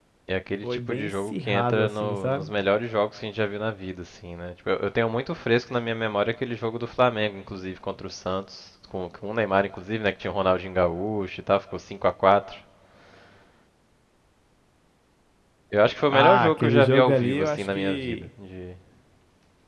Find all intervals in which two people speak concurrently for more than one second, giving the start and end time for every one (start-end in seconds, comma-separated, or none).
0.6-2.5, 16.1-18.1